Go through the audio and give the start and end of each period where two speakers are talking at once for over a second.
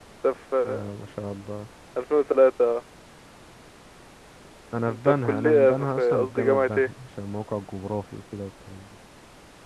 4.9-6.9

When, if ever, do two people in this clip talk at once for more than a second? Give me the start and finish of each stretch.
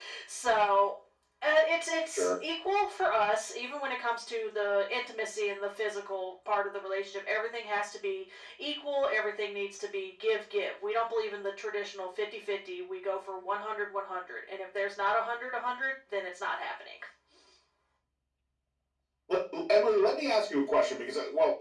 none

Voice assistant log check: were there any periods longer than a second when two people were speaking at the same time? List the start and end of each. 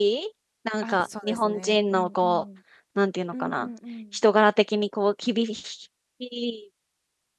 0.8-2.4

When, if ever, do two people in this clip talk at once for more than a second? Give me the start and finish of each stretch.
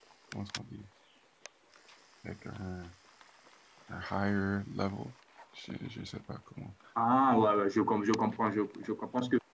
none

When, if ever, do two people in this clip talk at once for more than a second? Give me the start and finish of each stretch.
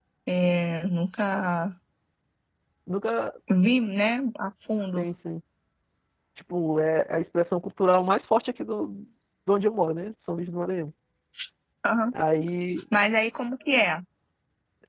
none

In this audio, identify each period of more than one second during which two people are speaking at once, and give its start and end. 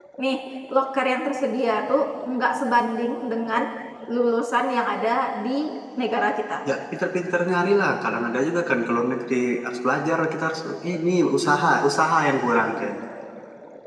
none

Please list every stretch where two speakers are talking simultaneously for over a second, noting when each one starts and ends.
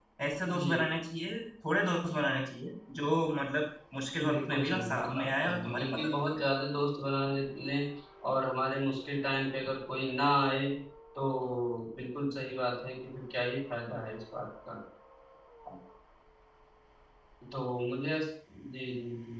4.2-6.4

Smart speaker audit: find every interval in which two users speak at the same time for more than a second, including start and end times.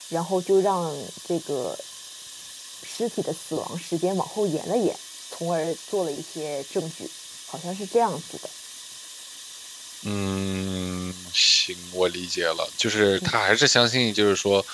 none

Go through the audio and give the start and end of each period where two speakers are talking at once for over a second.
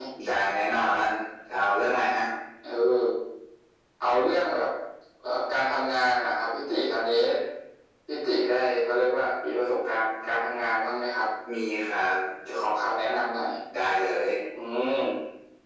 none

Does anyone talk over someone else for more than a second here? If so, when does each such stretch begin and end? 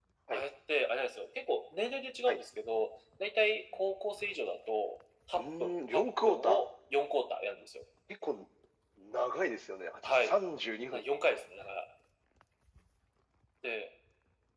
5.4-6.7

